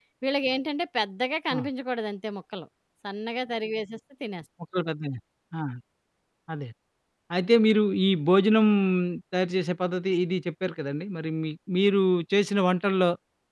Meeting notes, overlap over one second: none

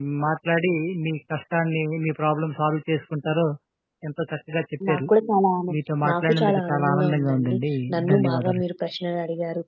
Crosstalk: present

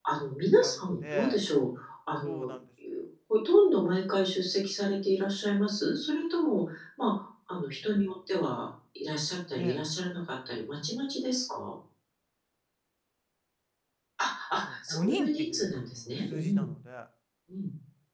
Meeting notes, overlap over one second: present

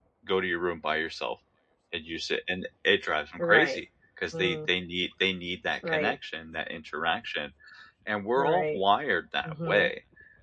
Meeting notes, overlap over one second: none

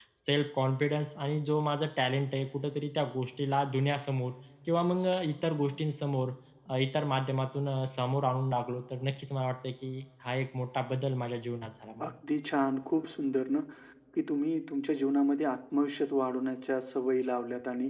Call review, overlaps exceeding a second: none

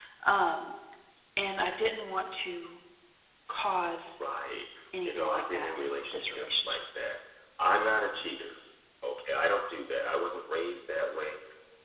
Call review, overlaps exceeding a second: present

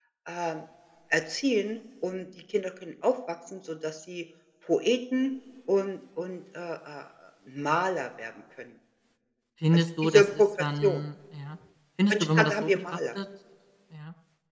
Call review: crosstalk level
present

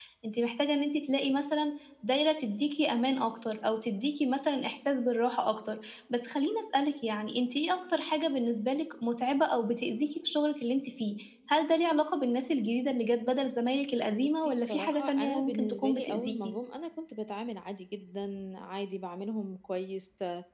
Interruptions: present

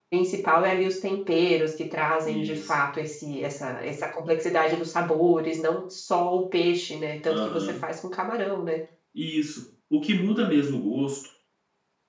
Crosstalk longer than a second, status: none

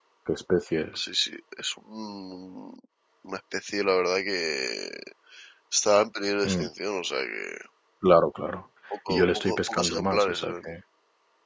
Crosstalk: present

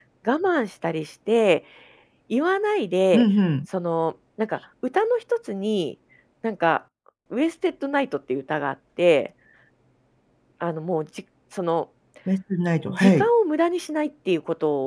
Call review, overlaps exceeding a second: none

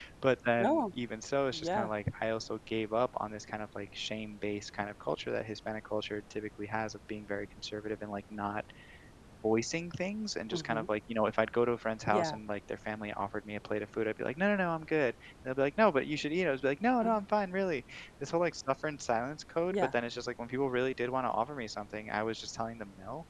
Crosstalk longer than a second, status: none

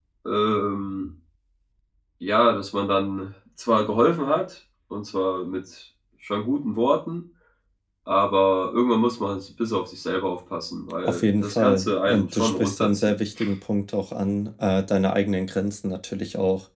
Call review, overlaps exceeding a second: present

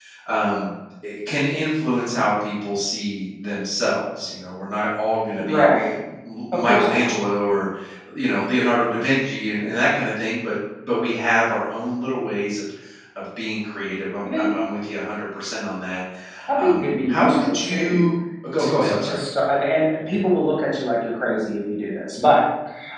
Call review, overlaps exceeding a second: present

